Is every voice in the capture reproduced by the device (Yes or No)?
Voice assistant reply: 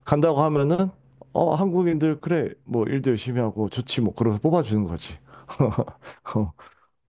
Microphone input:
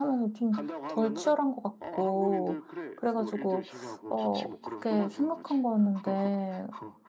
No